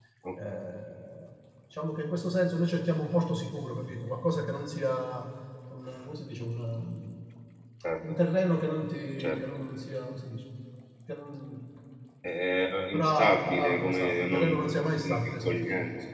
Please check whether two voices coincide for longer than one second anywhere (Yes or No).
Yes